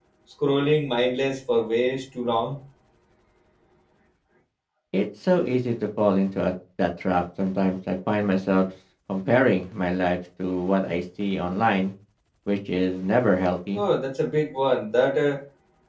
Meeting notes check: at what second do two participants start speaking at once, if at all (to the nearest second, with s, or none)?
none